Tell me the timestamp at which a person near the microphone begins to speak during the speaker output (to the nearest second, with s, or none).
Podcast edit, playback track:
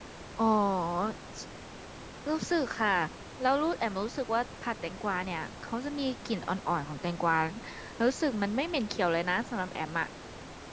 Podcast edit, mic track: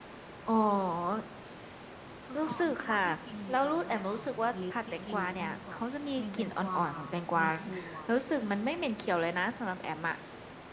2 s